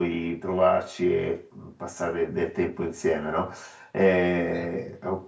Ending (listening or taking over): listening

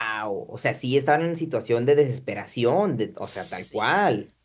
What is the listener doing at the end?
taking over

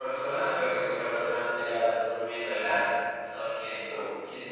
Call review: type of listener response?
listening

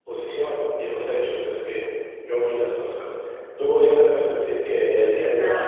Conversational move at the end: listening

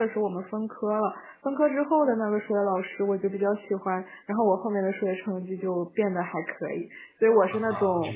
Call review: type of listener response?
taking over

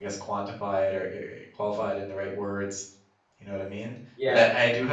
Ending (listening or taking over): listening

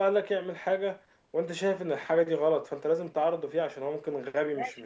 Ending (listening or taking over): taking over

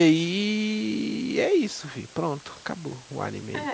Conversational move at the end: taking over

